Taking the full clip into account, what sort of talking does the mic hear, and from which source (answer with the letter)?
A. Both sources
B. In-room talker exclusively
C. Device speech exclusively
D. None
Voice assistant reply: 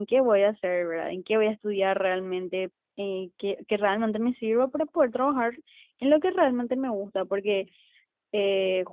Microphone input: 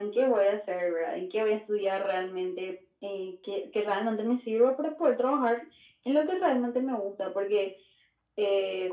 C